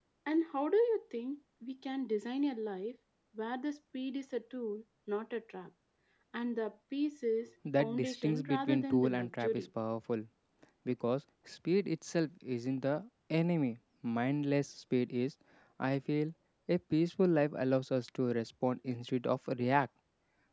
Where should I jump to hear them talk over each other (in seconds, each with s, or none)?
7.6 s